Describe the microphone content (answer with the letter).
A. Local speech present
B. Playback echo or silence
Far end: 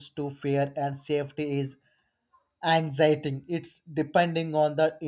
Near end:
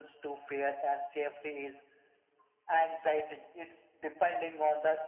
B